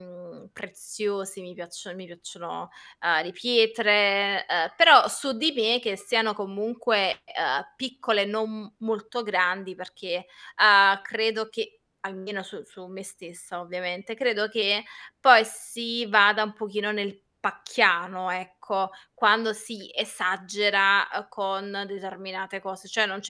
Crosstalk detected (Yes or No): No